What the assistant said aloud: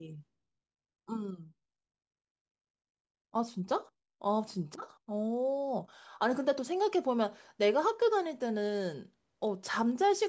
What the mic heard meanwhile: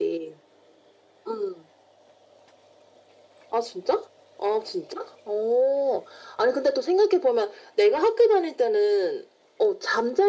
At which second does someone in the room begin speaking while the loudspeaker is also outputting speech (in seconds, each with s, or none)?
none